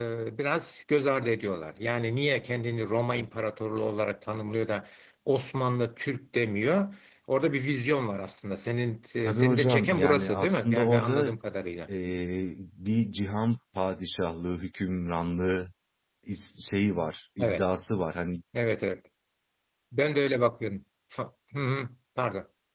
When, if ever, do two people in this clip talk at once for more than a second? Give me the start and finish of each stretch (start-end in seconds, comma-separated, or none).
9.3-11.3